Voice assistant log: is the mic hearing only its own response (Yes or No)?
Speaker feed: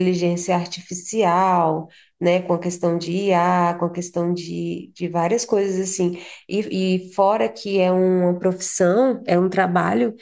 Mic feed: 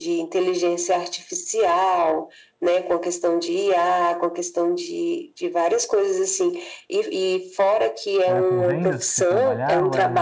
No